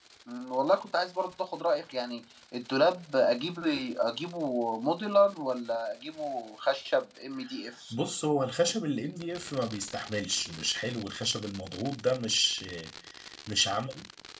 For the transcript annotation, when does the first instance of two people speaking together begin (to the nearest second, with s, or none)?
none